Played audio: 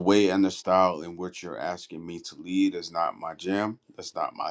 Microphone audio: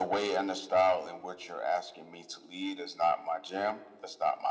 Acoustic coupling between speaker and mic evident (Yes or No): Yes